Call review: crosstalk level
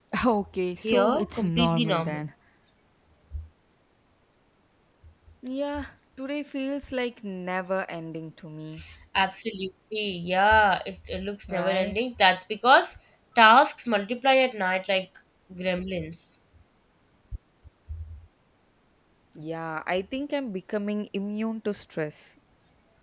present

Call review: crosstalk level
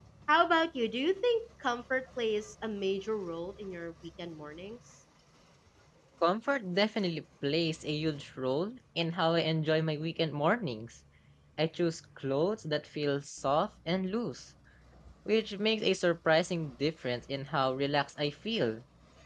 none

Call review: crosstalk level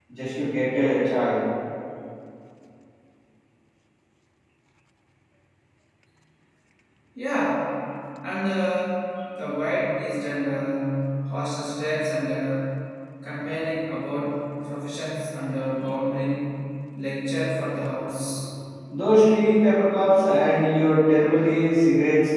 none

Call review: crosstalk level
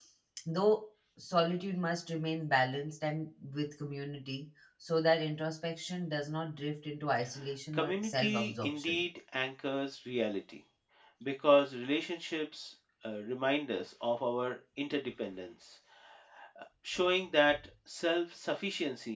present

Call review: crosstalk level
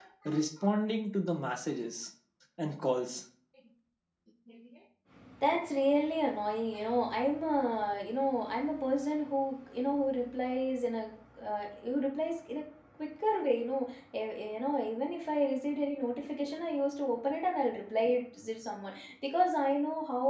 none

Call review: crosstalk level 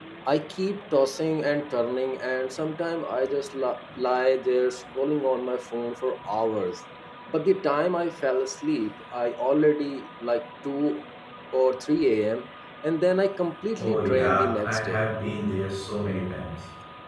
present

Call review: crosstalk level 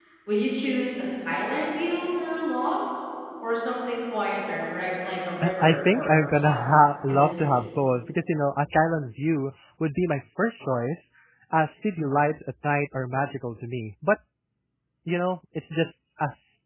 present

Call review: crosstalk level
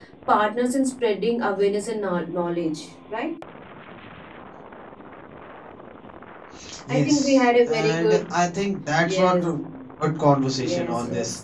present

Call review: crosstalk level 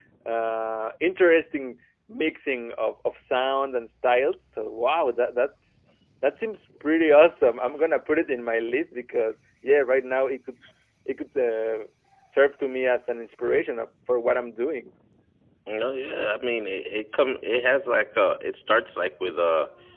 none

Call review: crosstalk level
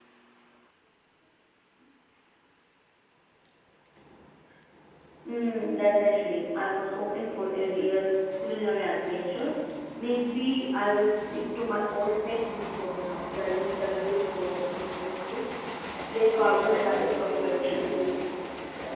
present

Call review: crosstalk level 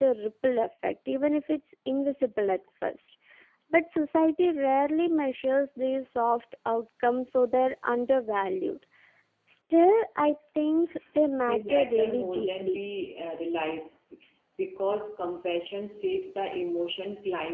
present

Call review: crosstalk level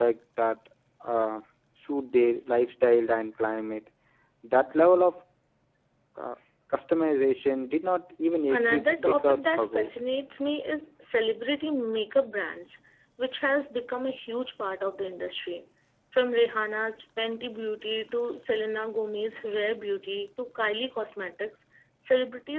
present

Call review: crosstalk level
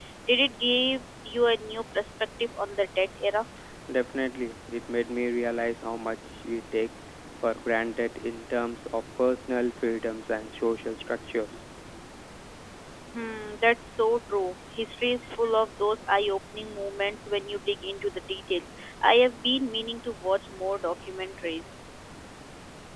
none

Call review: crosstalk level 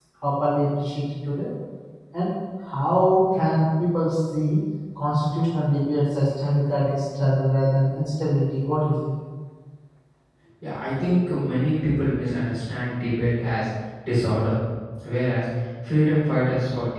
none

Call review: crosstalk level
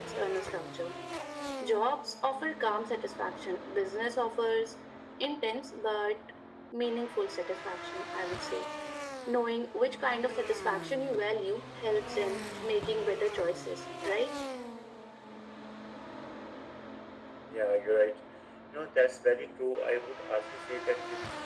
none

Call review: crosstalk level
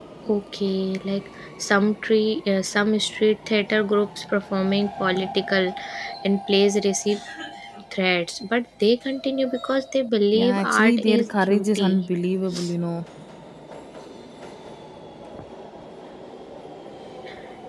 present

